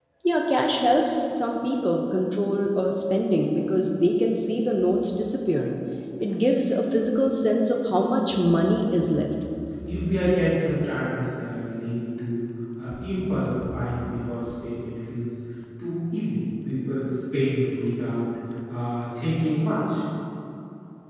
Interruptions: none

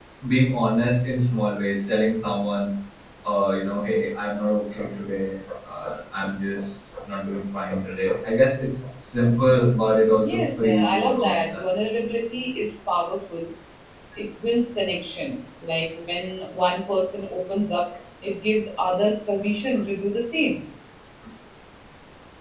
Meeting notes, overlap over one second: present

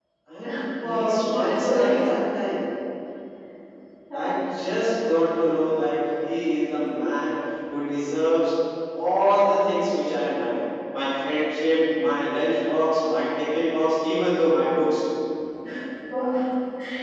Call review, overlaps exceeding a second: present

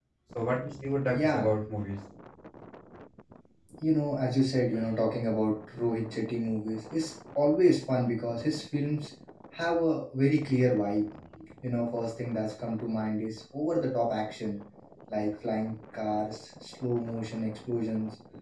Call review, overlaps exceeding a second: none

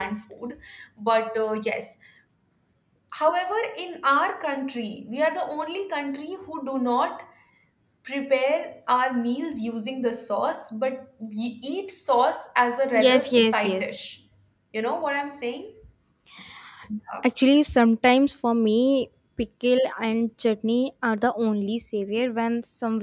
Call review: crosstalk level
present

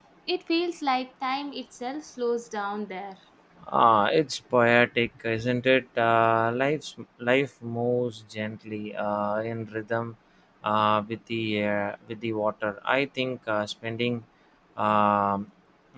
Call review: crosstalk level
none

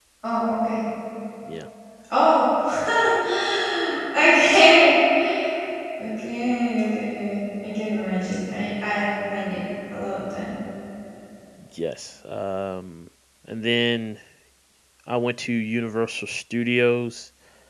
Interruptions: none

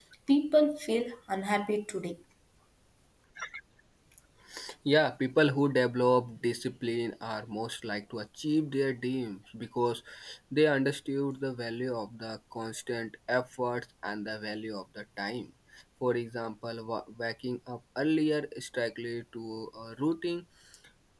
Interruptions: none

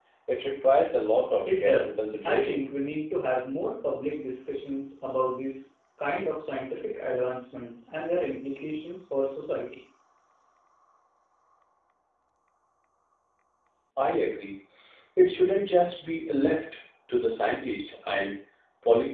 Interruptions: present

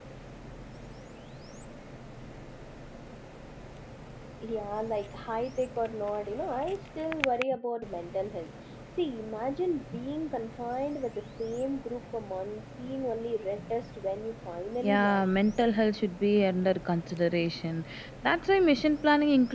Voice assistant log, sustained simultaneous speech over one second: none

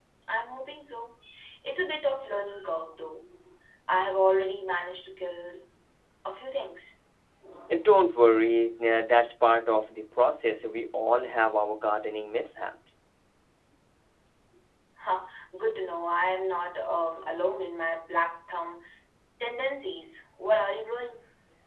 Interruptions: none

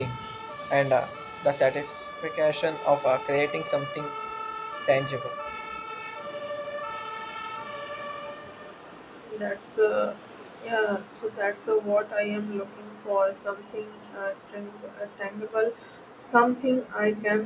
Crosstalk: none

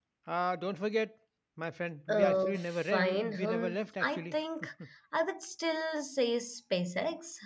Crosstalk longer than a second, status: present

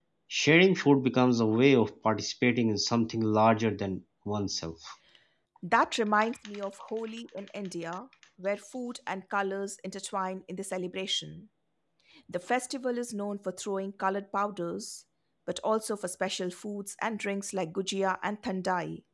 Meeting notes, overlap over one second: none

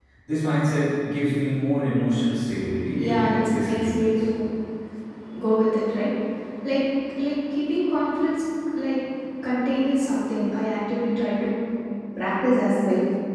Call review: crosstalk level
present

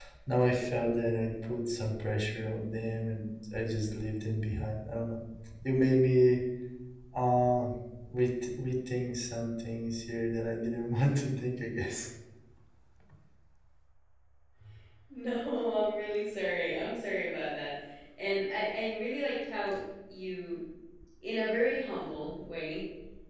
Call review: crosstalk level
none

